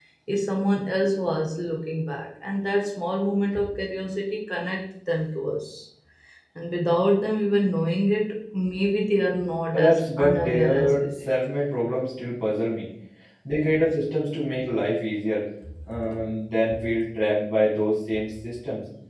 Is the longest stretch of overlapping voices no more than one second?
No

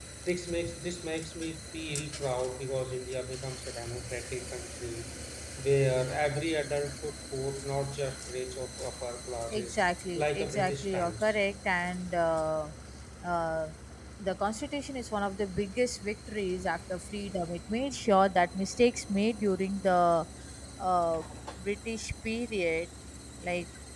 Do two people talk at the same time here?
Yes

